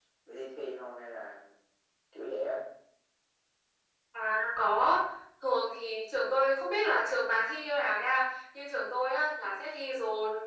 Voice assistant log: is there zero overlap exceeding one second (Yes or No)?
Yes